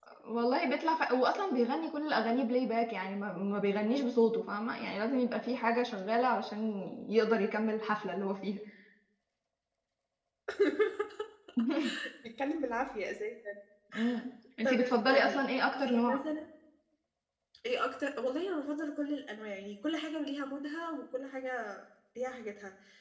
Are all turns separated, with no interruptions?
No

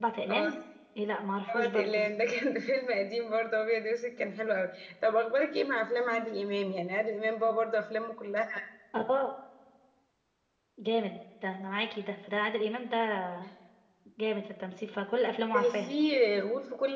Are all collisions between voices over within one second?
Yes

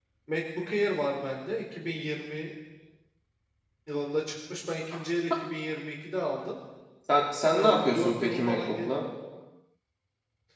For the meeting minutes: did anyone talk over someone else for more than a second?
Yes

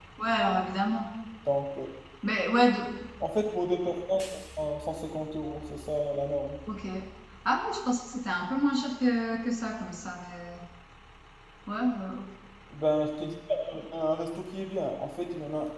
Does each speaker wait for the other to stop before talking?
Yes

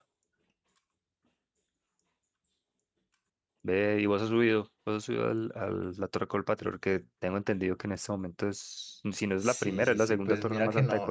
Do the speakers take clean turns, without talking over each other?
No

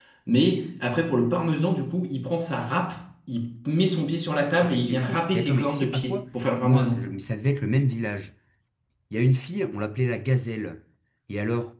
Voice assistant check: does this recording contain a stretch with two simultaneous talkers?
Yes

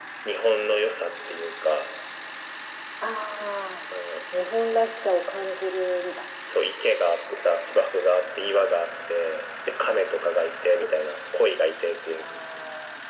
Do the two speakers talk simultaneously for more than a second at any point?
No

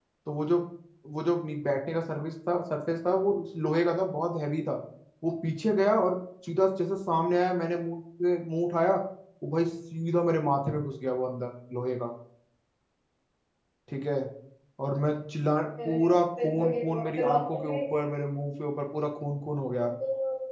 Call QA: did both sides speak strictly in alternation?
No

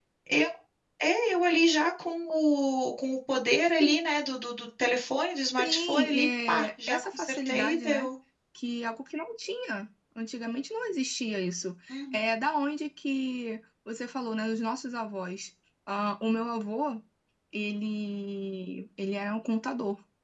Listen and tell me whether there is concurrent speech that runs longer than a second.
Yes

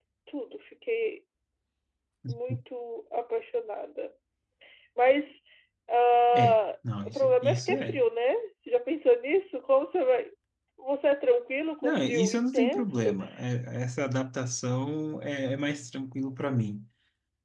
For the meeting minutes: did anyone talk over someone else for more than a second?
Yes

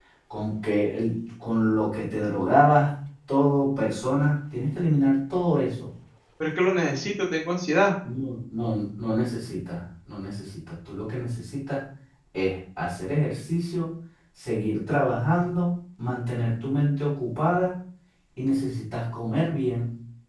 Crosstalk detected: No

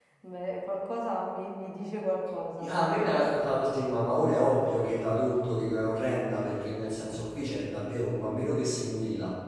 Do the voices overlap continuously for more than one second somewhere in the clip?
No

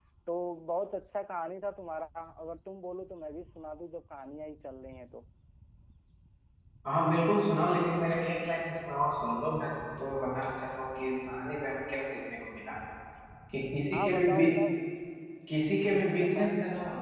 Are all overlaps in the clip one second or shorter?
Yes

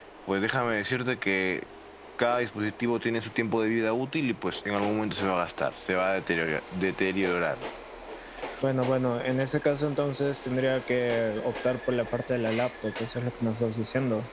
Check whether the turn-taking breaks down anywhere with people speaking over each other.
No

